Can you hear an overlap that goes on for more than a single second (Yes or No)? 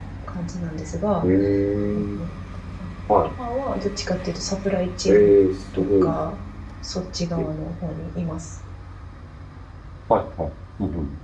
No